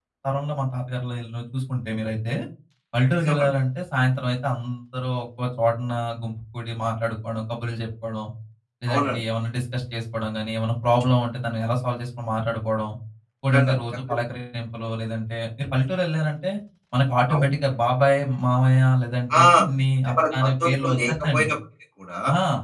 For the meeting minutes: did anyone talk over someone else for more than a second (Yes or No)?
Yes